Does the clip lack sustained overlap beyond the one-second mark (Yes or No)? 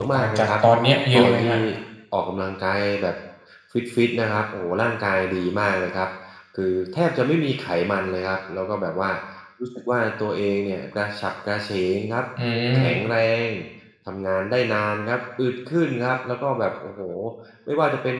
Yes